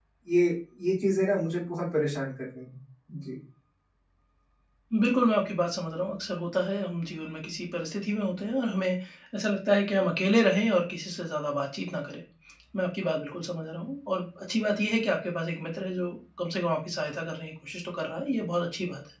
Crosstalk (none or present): none